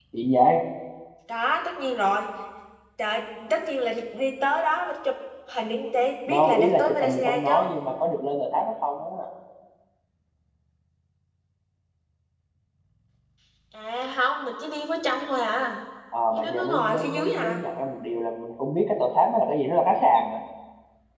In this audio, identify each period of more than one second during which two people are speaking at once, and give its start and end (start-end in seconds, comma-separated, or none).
6.3-7.7, 16.3-17.6